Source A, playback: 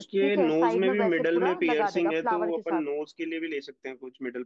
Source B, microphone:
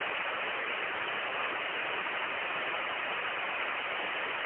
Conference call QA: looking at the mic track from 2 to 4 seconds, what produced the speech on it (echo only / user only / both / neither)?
neither